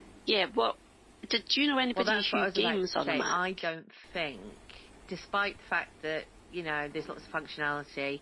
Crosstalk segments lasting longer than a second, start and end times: 2.0-3.4

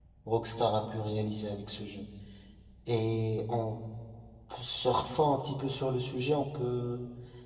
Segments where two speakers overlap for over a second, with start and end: none

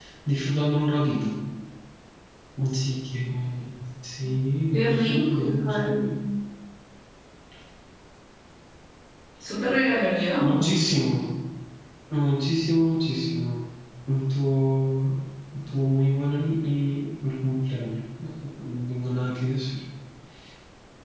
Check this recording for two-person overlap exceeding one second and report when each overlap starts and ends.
4.7-6.2

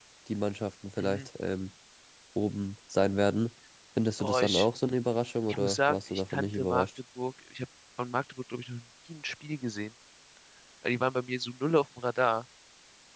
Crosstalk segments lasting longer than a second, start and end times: 5.5-6.8

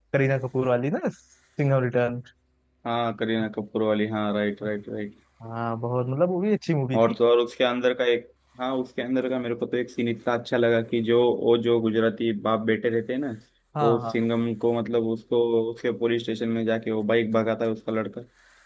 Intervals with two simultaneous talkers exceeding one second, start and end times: none

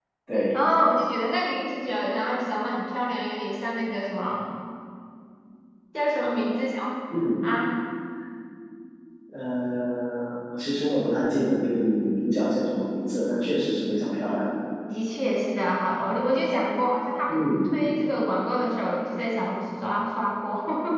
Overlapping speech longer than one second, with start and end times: none

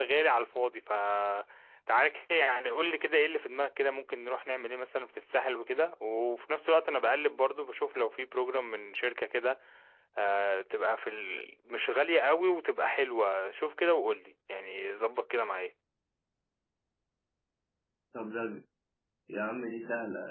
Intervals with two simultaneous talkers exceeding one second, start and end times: none

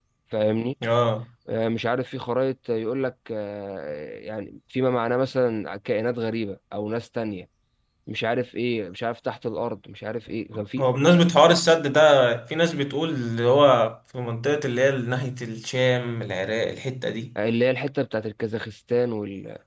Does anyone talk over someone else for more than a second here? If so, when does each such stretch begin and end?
none

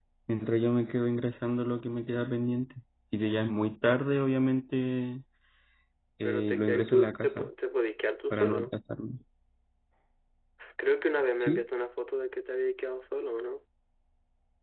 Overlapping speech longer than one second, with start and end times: 6.2-7.5

